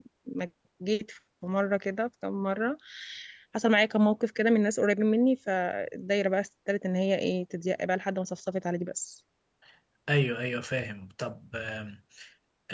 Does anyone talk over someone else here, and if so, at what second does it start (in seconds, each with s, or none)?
none